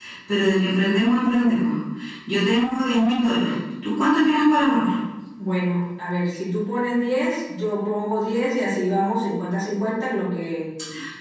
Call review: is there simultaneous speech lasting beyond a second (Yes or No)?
No